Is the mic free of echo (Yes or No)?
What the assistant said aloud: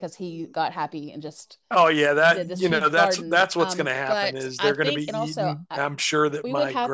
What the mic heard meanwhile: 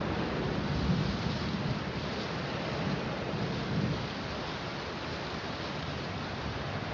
Yes